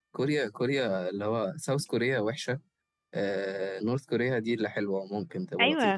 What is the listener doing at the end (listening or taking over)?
taking over